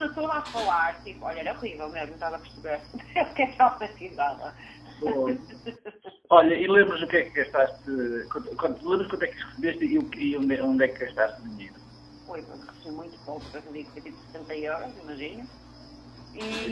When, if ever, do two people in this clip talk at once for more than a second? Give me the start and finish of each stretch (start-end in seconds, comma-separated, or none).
none